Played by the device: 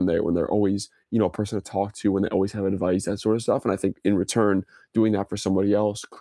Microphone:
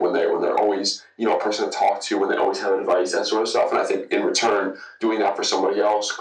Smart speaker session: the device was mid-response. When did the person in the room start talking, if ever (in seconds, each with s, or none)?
none